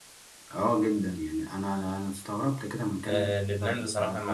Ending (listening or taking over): taking over